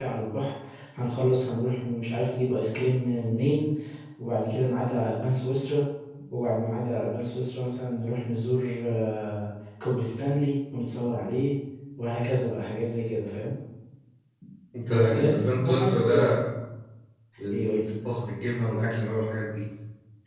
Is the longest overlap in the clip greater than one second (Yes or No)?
Yes